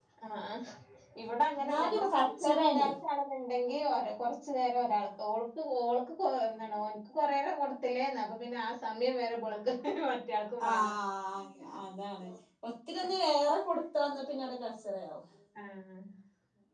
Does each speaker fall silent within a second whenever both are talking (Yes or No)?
No